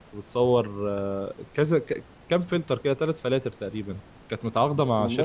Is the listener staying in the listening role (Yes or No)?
Yes